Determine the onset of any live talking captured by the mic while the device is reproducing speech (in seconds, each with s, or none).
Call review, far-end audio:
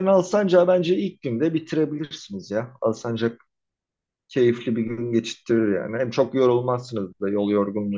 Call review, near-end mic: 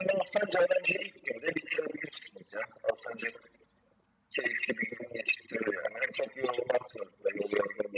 none